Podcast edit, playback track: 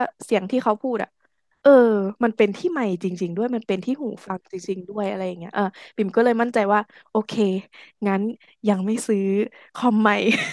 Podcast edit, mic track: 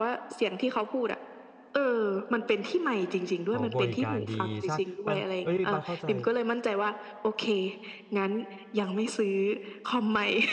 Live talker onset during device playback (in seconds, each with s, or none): 3.5 s